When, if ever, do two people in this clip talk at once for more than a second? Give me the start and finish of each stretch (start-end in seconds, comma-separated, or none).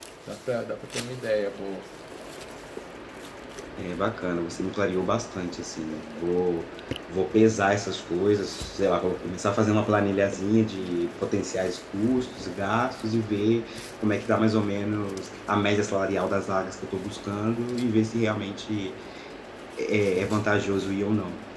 none